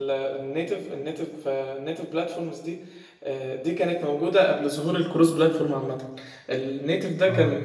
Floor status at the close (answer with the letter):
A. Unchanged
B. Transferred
A